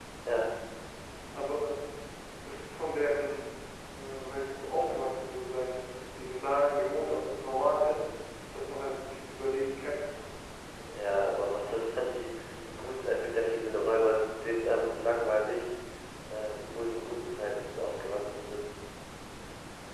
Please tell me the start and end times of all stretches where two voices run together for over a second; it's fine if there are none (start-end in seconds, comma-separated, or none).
none